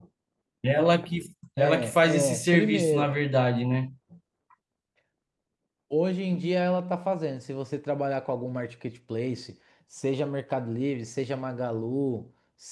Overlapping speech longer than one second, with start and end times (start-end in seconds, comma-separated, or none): 1.6-3.2